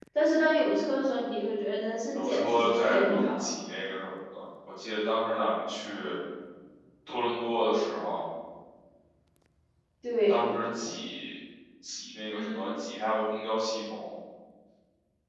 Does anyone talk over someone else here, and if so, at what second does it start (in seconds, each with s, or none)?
2.1 s